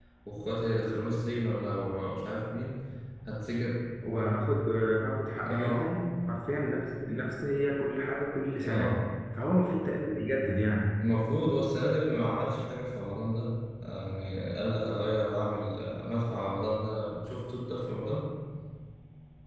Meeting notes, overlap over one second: none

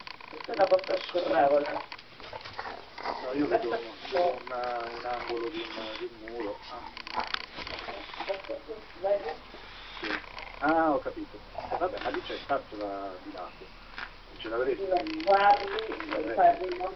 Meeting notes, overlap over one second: present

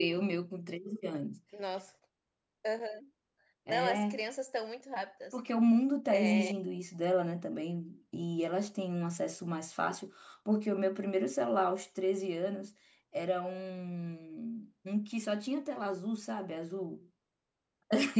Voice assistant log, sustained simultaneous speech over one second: none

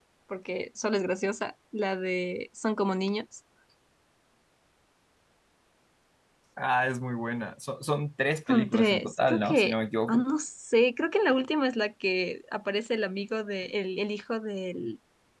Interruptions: present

